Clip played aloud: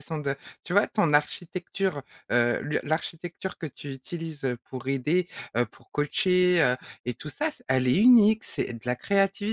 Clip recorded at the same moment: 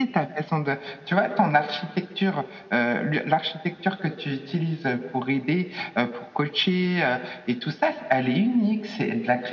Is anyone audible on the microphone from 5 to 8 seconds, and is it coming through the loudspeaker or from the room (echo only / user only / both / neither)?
echo only